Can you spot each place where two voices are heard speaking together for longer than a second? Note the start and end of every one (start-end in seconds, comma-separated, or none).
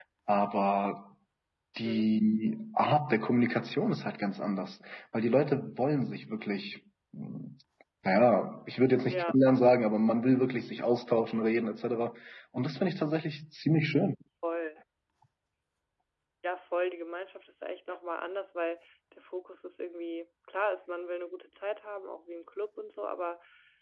none